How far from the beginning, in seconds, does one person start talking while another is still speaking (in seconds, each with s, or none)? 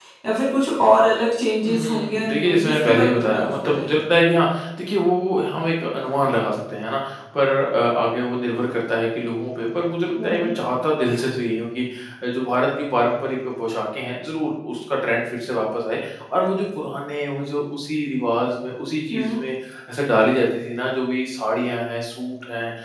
1.7 s